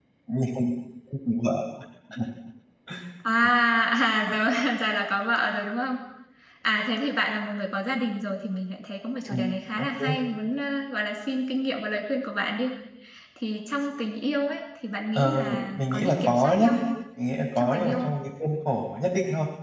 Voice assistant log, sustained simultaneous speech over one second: present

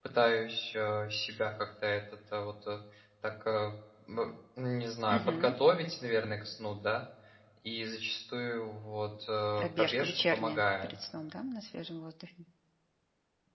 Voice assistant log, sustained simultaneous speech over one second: present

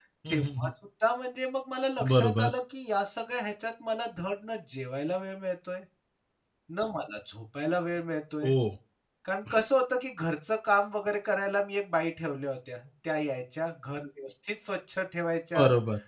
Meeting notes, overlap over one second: none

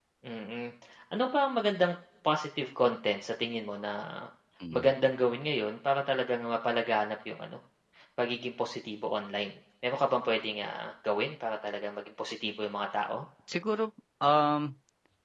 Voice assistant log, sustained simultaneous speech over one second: none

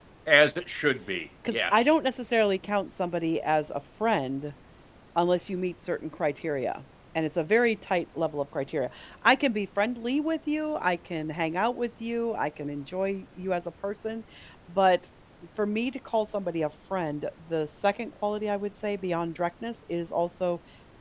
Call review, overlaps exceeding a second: none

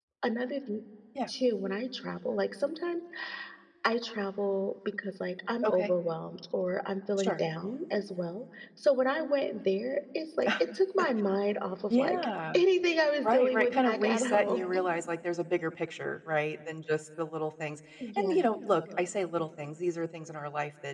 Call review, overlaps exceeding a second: present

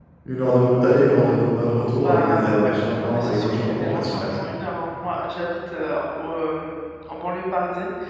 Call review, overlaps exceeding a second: present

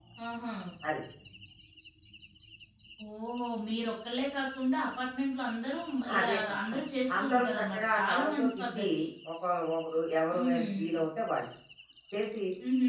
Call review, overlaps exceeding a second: present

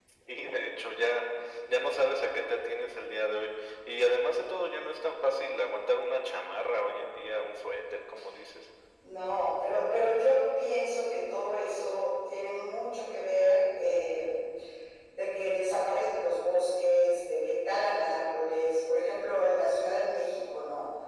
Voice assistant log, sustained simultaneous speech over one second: none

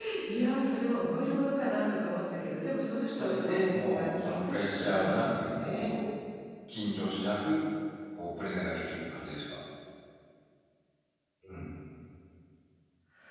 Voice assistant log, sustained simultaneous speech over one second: present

